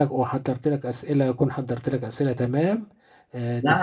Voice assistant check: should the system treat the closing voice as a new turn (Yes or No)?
Yes